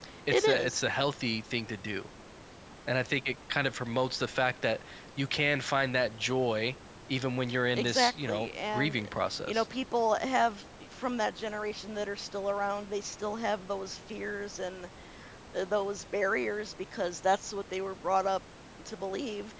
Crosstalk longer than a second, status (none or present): present